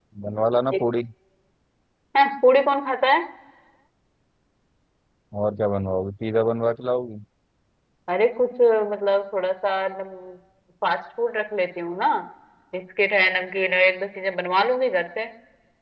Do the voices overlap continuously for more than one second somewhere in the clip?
No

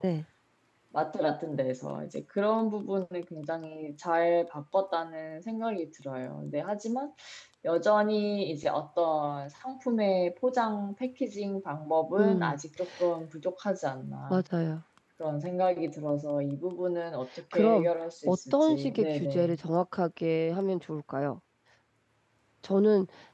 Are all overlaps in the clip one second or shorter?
No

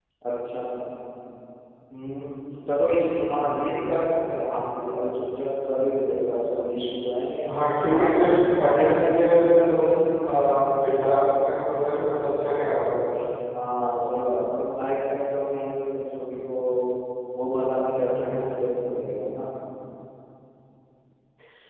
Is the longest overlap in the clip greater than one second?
Yes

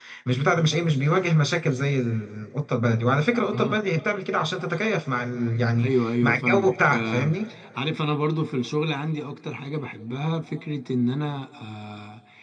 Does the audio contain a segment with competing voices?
Yes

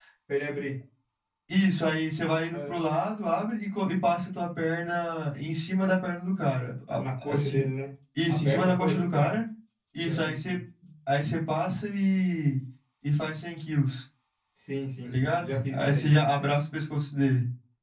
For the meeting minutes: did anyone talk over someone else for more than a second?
Yes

